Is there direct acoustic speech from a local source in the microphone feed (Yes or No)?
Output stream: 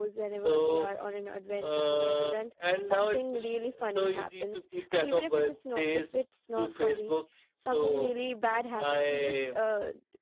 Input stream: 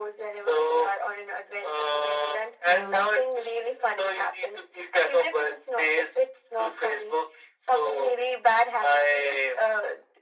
Yes